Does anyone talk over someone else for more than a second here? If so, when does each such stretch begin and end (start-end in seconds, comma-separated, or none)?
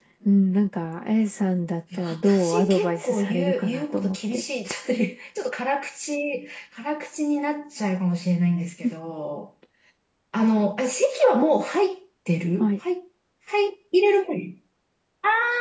1.9-4.4